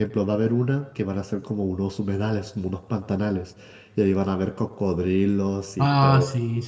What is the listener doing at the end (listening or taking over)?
taking over